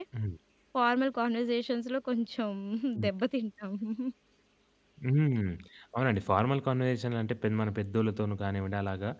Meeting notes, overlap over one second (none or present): none